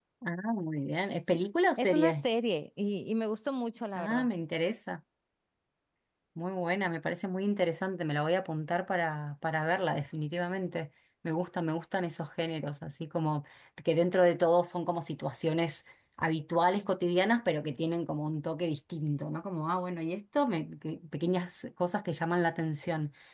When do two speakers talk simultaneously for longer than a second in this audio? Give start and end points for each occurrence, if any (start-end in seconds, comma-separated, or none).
none